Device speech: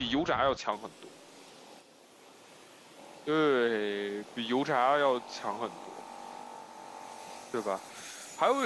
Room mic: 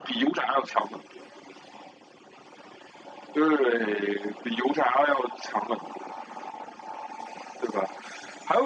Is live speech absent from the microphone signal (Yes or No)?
Yes